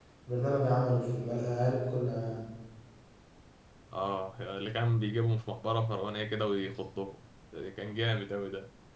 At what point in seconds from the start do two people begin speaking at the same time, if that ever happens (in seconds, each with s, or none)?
none